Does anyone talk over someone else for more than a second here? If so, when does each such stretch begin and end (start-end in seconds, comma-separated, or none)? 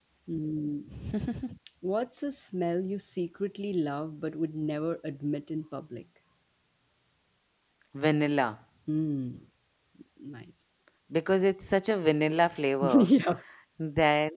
none